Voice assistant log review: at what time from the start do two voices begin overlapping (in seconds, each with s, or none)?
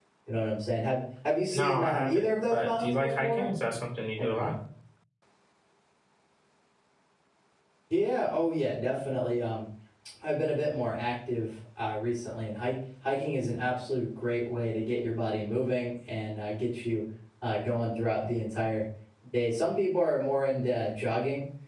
1.5 s